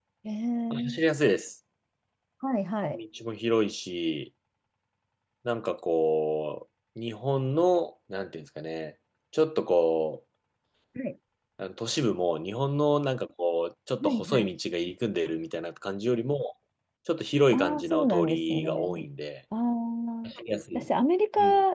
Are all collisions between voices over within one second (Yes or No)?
No